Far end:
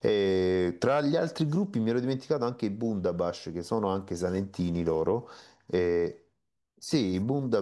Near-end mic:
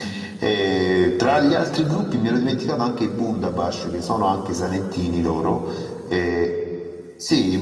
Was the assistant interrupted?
No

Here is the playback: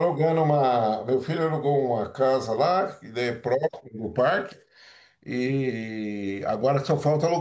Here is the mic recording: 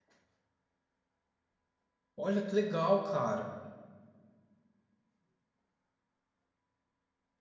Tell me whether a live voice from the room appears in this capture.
Yes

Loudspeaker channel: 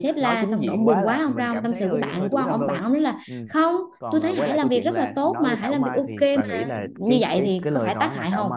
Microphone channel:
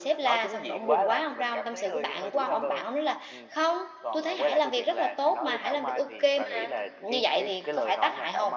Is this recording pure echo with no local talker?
Yes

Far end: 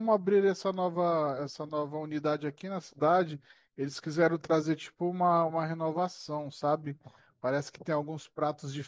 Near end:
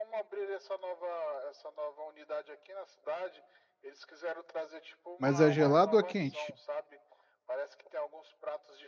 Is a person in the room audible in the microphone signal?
Yes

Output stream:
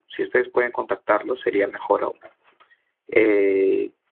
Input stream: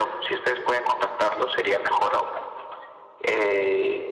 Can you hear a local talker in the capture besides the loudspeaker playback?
No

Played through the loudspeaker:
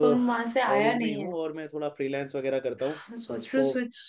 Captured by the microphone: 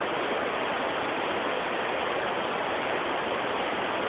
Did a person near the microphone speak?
No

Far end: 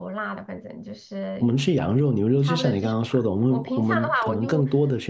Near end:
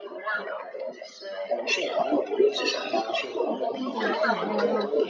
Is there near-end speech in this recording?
Yes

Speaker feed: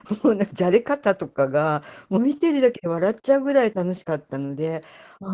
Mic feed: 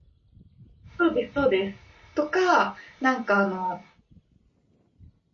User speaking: Yes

